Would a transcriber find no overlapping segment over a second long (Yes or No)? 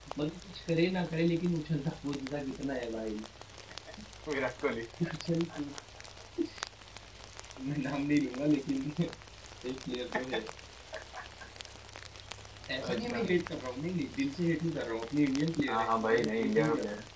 No